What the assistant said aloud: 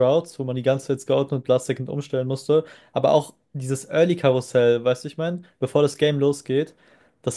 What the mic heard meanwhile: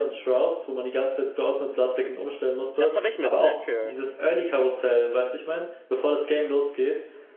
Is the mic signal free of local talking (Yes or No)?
No